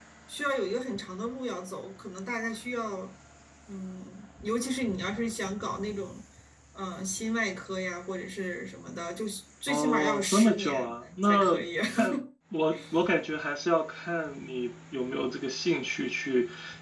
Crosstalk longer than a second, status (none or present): present